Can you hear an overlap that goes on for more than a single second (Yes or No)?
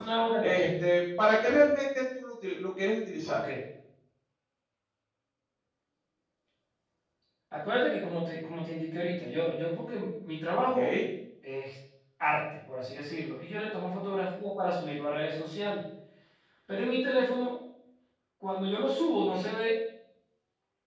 No